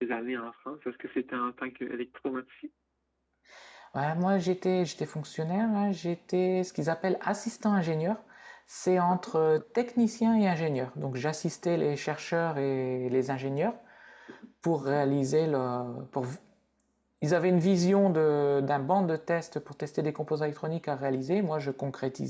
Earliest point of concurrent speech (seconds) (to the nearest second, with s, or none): none